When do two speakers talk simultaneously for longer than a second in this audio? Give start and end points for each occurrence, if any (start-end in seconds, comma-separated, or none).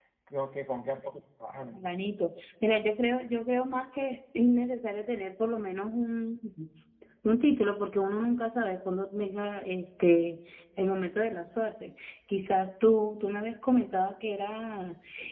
none